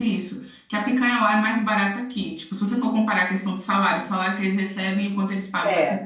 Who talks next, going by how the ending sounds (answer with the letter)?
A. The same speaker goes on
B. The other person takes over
A